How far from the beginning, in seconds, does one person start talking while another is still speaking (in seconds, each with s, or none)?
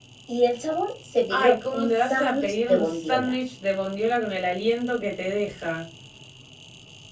1.3 s